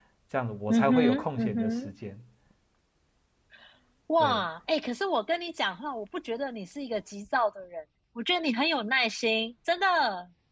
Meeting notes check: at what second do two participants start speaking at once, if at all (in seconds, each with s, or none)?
0.7 s